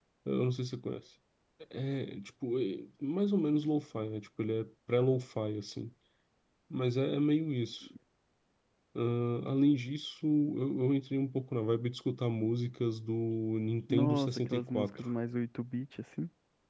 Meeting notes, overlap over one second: present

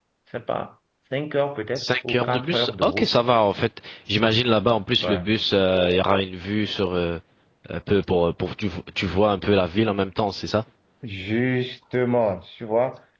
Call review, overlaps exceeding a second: present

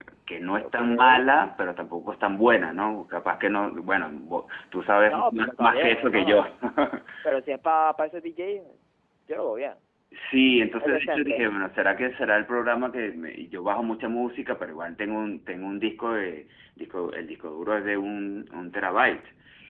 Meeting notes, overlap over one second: present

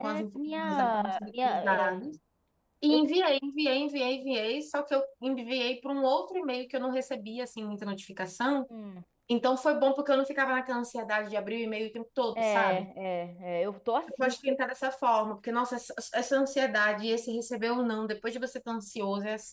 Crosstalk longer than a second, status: present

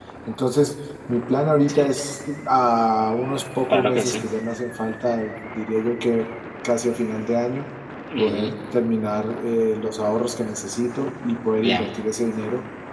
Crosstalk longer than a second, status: none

